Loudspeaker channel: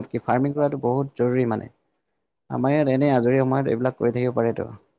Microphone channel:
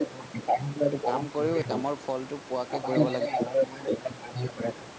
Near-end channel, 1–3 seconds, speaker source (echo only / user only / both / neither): both